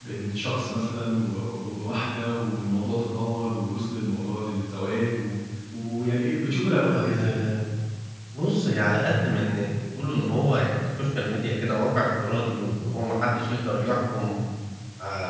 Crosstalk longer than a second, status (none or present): none